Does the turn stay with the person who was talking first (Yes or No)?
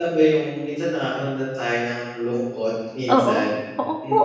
No